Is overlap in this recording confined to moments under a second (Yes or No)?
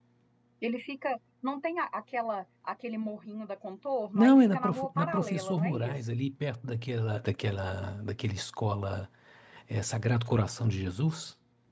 No